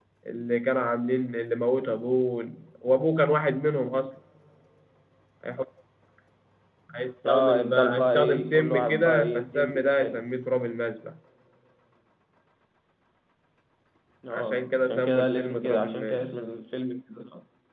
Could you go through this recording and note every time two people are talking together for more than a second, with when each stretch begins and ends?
7.3-10.2, 14.3-16.3

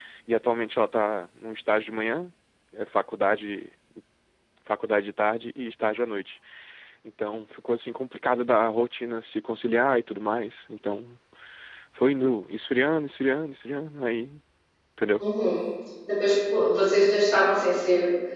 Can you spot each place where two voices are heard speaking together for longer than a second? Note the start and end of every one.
none

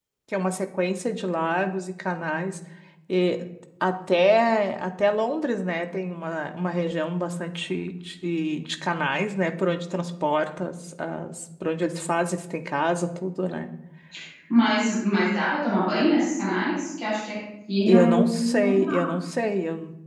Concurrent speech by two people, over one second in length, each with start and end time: 17.9-19.1

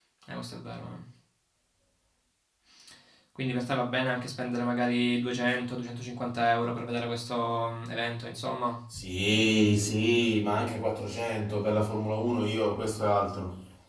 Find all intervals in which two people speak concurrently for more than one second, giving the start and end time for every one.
none

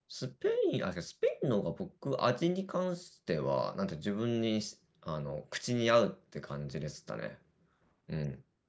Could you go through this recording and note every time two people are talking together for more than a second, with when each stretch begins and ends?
none

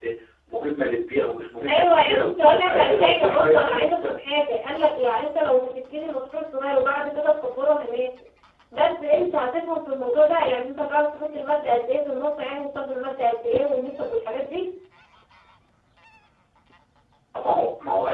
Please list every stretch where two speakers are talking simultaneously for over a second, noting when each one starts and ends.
1.7-4.1

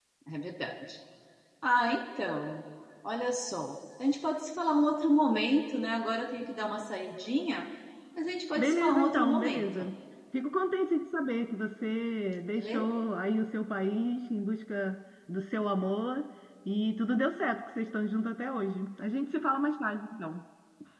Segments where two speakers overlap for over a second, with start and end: 8.6-9.8

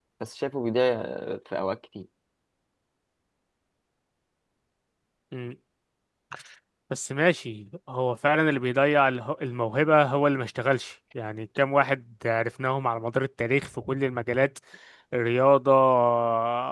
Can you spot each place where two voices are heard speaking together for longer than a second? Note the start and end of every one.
none

